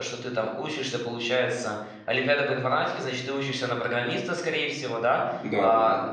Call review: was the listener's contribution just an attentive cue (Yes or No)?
Yes